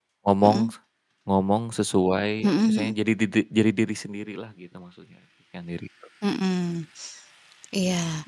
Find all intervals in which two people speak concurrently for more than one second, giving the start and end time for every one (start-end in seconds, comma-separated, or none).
none